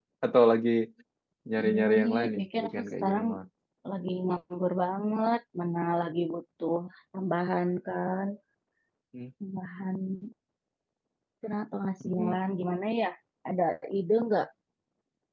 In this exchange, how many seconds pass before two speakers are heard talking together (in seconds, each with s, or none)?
1.7 s